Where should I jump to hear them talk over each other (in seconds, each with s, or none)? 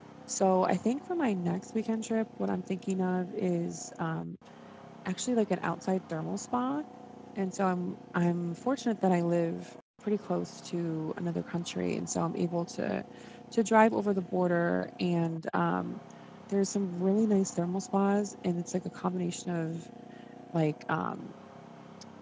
none